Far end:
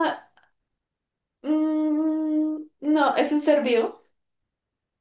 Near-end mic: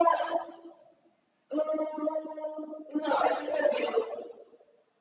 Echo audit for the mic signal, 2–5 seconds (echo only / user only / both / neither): echo only